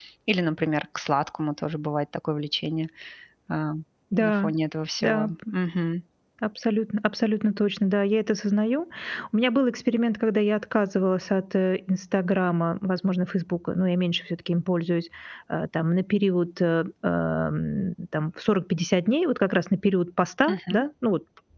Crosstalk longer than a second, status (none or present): none